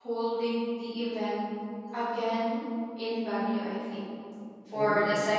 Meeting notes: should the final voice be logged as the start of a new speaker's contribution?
No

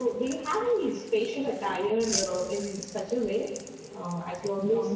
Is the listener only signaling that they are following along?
No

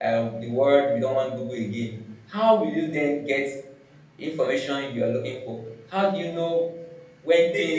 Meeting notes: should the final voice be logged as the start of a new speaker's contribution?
No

